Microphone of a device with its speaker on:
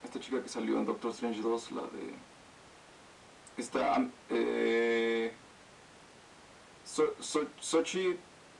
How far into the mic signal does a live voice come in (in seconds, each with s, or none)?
none